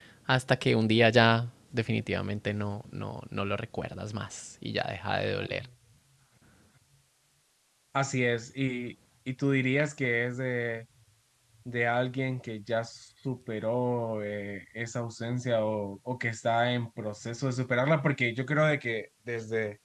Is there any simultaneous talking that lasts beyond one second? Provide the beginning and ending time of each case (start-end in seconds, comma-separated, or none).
none